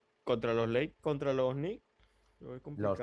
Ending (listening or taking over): taking over